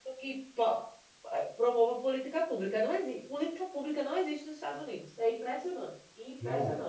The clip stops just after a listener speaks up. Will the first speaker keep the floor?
No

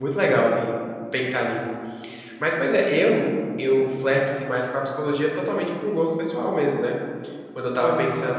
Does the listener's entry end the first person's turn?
No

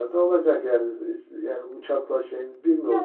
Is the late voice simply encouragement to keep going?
No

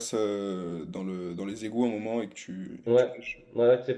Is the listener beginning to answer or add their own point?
Yes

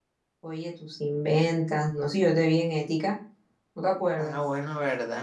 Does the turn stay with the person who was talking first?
No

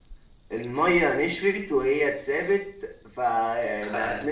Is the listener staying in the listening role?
Yes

